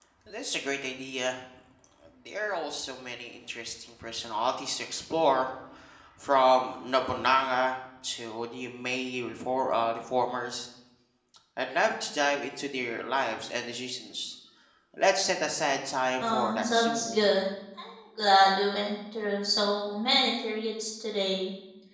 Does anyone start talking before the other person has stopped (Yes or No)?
Yes